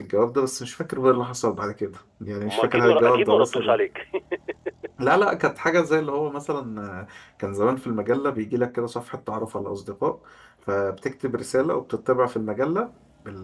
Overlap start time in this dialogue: 2.4 s

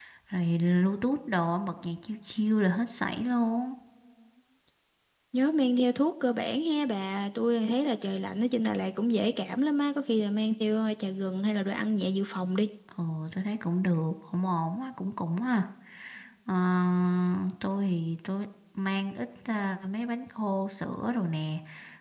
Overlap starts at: none

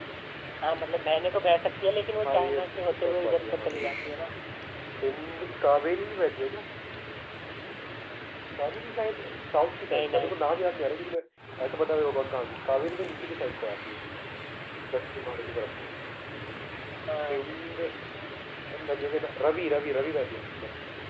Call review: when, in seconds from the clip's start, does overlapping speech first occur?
2.3 s

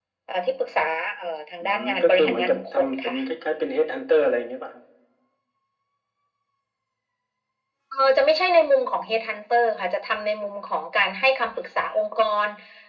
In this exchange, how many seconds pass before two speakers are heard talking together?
1.6 s

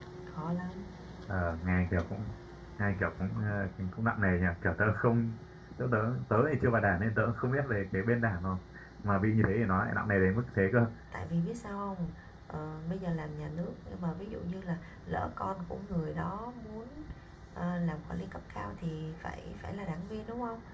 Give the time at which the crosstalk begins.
none

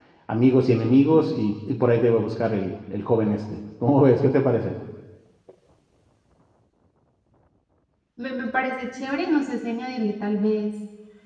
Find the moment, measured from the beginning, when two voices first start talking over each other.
none

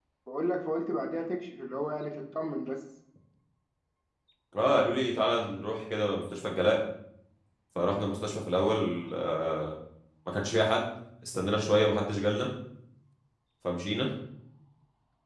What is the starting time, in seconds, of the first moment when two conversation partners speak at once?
none

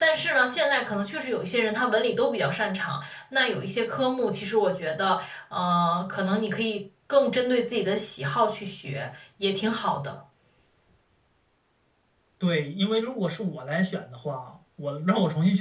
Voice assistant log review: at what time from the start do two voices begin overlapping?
none

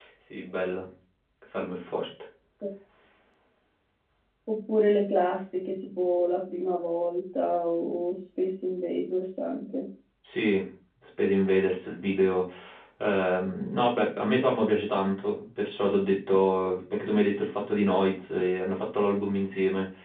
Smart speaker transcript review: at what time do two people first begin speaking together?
none

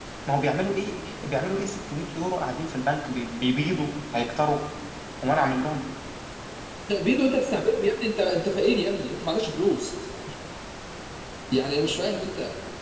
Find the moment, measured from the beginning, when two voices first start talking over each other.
none

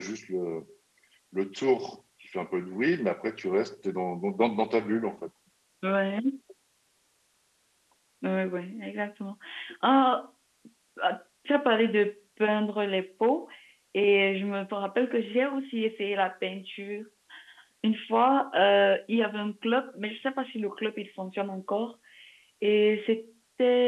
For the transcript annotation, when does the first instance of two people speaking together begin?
none

